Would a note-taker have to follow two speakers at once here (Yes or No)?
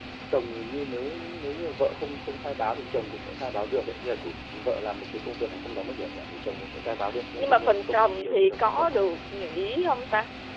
Yes